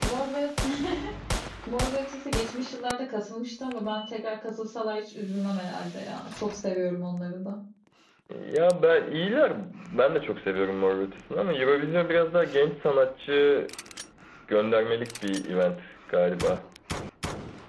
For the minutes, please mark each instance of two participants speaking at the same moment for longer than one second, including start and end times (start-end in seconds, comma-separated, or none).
none